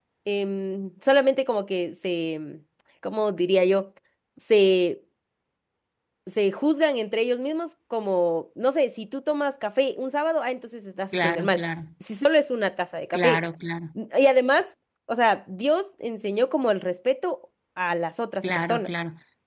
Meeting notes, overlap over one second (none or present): none